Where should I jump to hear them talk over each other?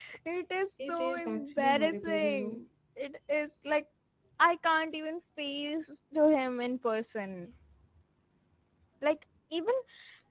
0.8 s

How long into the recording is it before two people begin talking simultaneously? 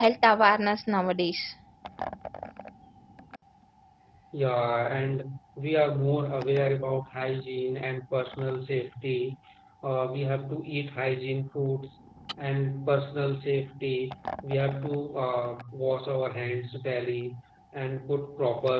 none

